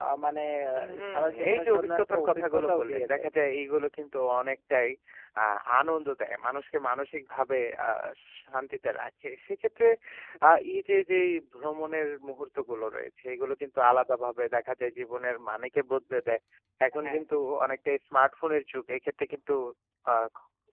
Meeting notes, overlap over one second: present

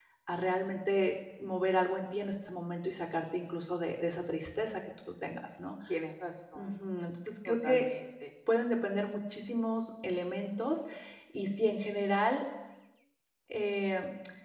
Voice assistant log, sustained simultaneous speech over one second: none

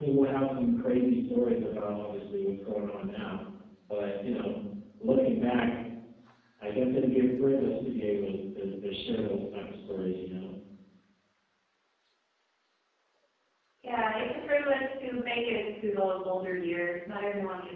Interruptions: none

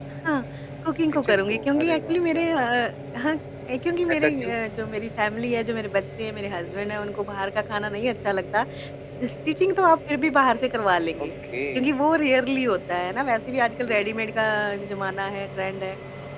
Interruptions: present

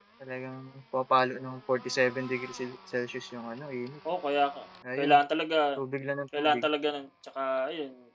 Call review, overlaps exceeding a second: none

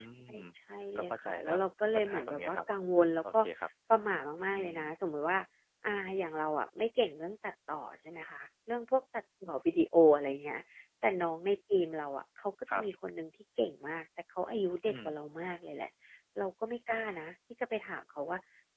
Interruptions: present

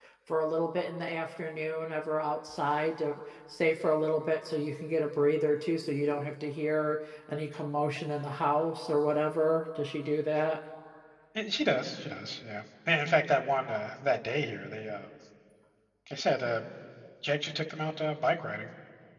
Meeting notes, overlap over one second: none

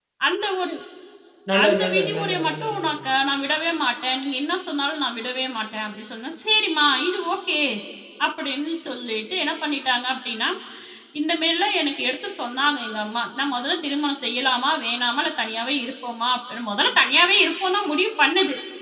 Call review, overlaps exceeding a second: present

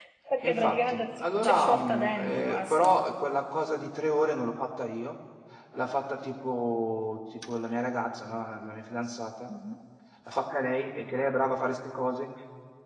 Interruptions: present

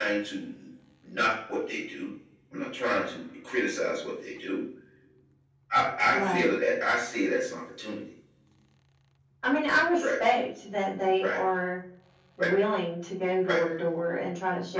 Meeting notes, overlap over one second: none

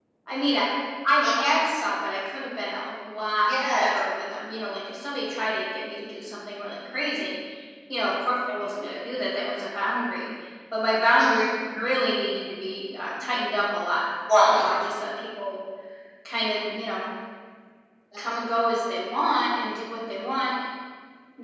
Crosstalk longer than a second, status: none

